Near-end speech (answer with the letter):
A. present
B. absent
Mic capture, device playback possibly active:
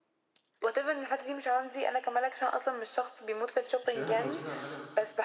A